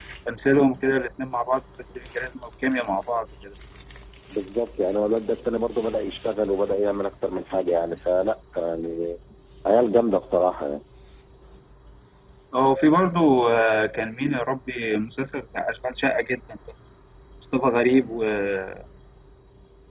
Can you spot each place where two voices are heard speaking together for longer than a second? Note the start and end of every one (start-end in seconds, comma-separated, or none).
none